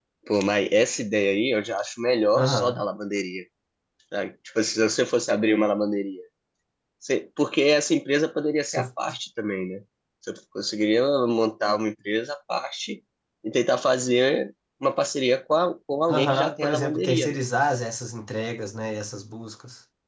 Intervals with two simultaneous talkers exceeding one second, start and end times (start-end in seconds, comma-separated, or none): 16.1-17.4